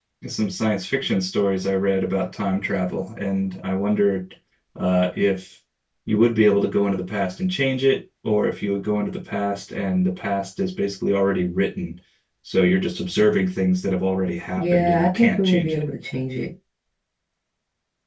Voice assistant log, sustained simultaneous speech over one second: present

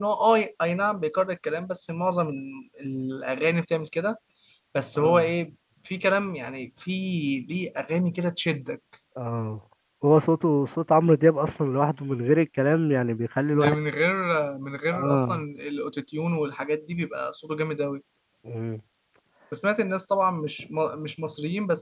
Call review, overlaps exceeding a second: none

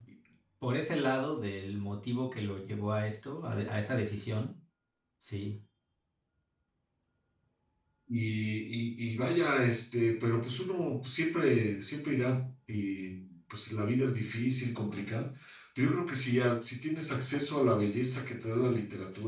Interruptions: none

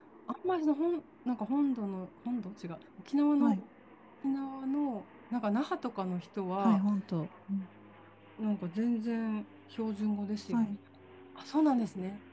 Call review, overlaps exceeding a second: none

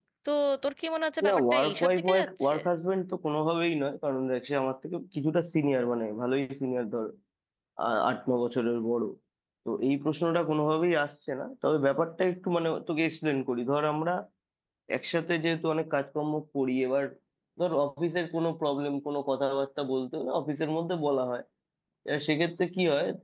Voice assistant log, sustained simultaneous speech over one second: present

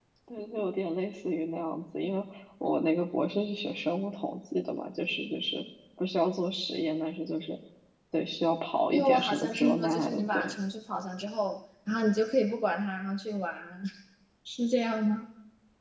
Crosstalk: present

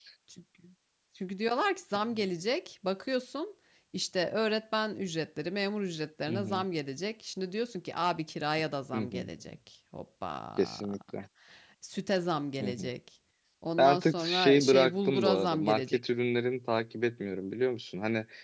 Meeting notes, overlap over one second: present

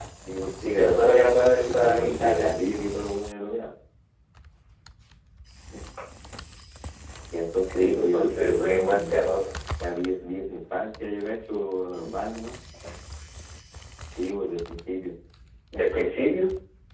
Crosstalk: present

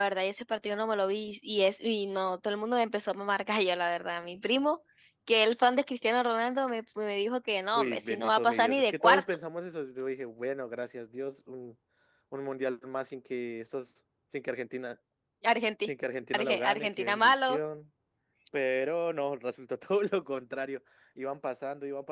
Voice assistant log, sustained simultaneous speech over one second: present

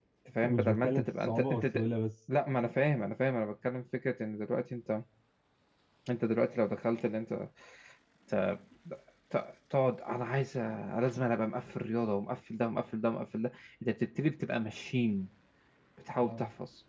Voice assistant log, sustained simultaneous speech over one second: present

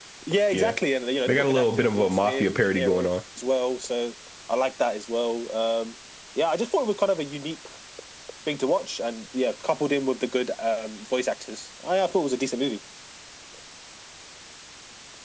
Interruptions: present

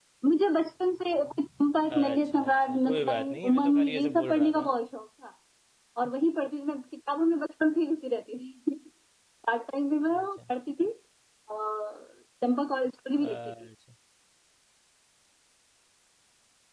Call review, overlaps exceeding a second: present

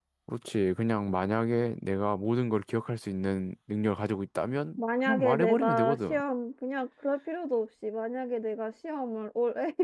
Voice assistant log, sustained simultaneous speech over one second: present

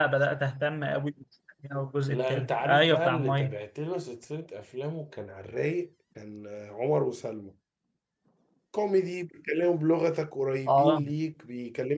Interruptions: present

